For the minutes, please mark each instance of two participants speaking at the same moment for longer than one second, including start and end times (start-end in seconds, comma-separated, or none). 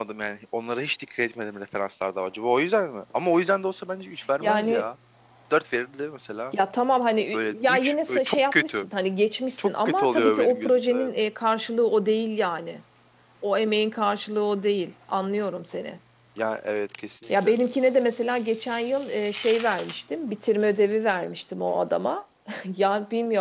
7.3-8.8, 9.6-11.1